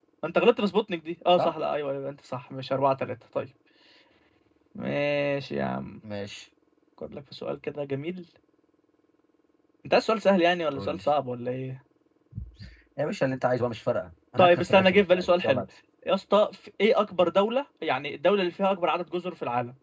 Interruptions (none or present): present